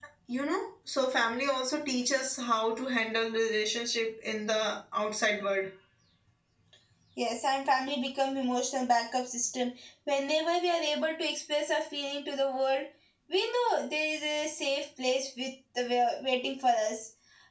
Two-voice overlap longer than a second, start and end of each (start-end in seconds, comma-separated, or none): none